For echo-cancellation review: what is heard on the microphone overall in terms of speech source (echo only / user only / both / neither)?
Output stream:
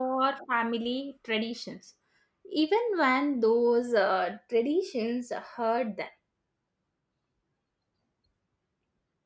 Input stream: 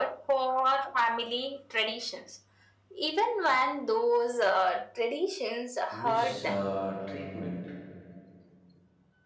both